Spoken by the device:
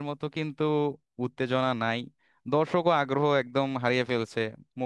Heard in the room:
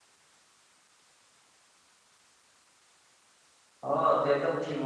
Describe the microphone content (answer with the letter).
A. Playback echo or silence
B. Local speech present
B